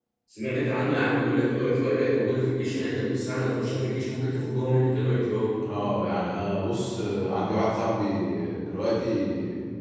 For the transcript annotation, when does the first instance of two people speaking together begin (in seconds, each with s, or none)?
none